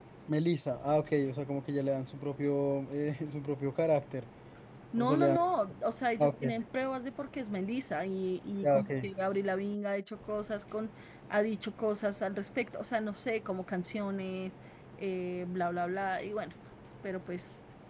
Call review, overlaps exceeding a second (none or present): none